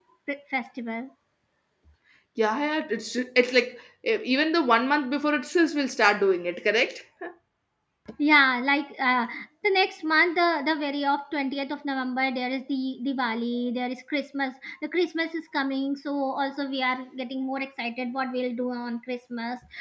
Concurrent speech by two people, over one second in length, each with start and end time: none

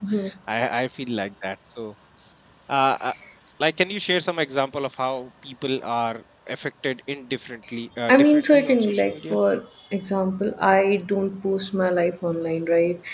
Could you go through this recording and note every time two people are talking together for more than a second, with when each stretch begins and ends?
8.1-9.4

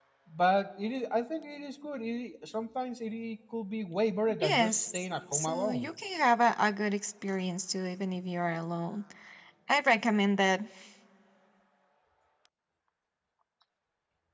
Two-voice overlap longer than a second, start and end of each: 4.4-5.9

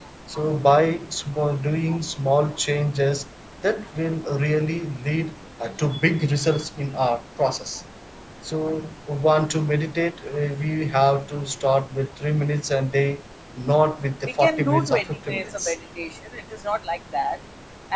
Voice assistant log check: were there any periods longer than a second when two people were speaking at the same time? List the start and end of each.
14.4-15.8

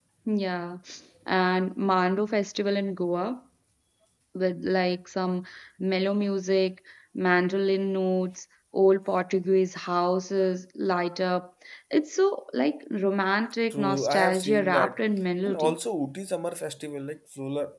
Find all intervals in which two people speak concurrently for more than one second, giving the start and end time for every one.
13.7-15.0

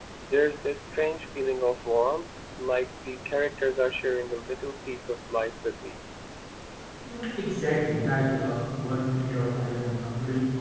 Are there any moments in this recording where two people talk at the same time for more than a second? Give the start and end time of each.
none

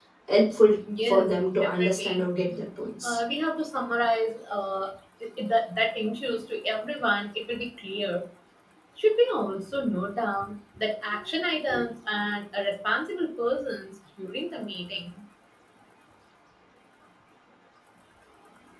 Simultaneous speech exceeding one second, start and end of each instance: 1.0-2.2

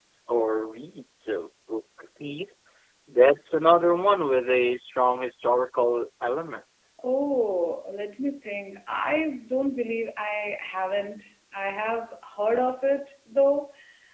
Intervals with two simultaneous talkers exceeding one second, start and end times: none

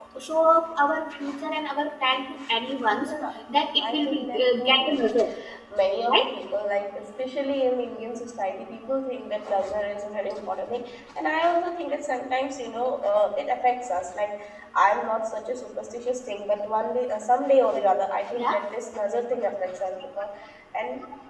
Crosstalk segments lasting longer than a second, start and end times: 3.8-5.2

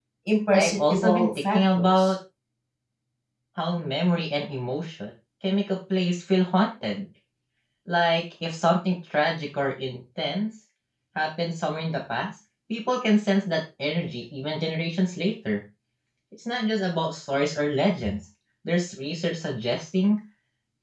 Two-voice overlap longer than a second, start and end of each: 0.5-2.1

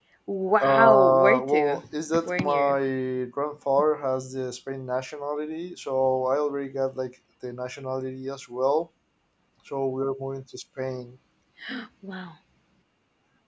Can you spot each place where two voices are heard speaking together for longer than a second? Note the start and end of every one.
0.6-1.8

